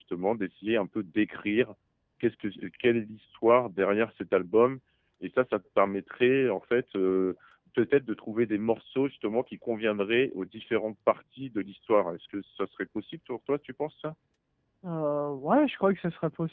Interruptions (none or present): none